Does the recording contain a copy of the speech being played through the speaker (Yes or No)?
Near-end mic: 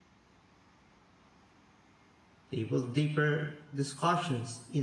No